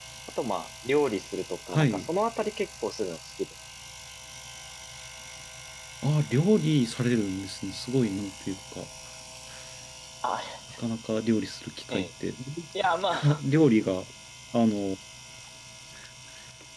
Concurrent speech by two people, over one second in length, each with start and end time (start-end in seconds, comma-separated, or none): none